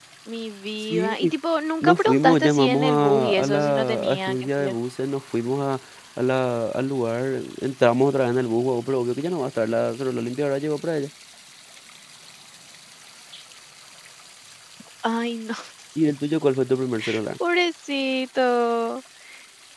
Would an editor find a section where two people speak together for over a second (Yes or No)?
Yes